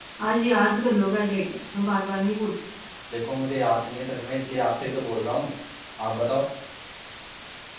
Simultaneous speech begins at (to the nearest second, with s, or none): none